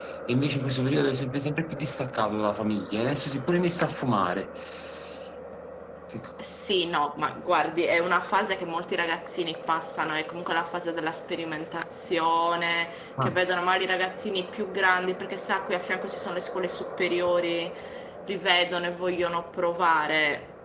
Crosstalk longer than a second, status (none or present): none